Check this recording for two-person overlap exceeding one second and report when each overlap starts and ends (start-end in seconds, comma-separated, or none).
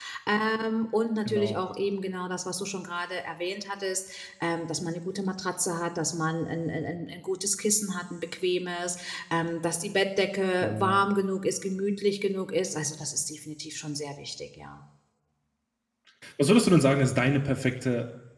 none